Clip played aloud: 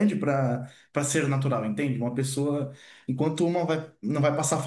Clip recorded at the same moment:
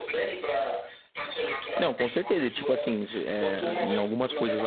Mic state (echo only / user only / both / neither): both